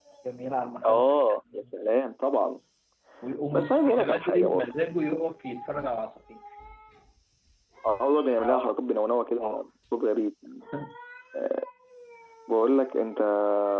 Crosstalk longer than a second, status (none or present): present